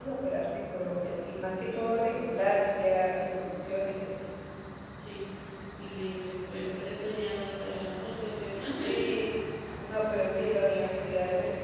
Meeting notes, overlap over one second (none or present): none